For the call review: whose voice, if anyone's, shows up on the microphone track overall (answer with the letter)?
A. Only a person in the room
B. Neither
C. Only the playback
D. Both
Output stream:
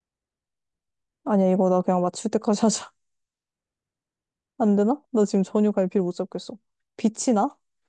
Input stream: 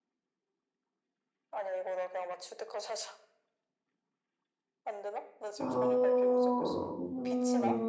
D